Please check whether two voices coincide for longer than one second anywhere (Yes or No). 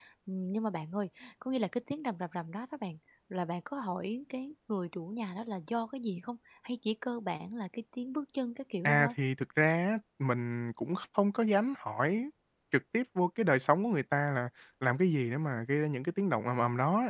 No